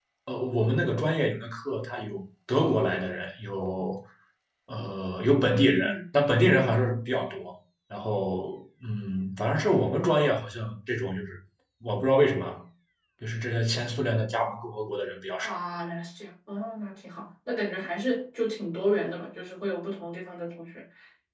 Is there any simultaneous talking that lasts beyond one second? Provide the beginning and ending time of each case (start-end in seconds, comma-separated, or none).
none